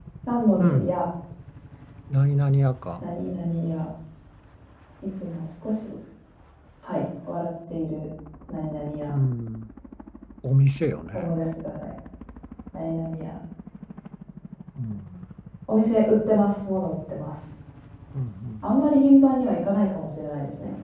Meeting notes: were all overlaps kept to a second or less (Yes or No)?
Yes